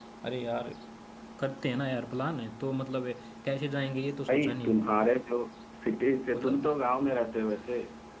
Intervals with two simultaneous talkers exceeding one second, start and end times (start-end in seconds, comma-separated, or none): none